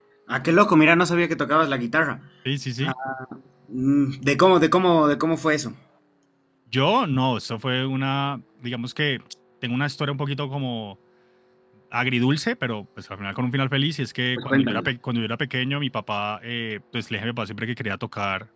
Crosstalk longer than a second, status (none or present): none